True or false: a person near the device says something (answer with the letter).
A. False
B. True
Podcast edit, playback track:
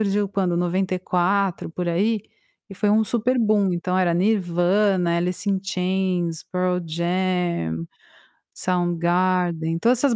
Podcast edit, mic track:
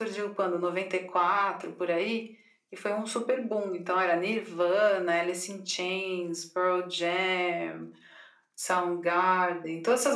A